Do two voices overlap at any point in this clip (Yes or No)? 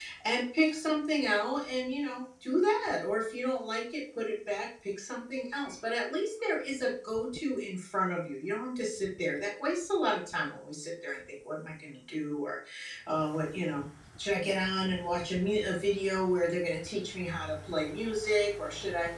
No